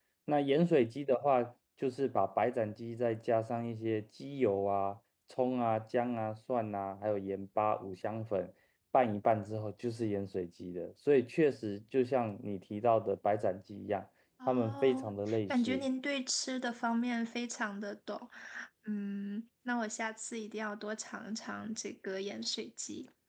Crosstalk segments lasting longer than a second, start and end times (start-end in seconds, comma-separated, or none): 14.5-15.8